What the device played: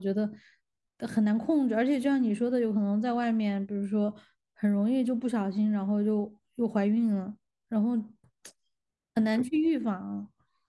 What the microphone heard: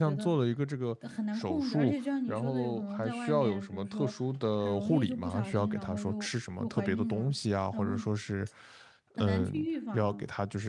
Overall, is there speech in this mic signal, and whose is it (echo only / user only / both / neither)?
both